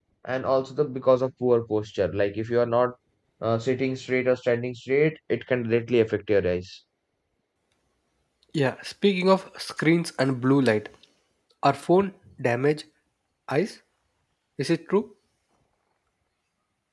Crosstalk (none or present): none